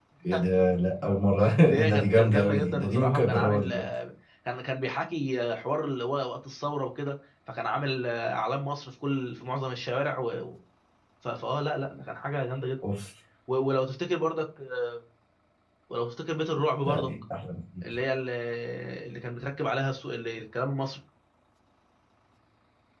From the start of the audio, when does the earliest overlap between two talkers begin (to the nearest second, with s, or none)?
2 s